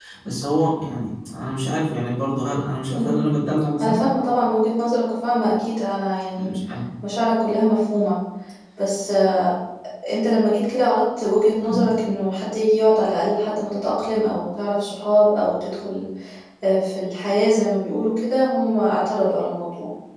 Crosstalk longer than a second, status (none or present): none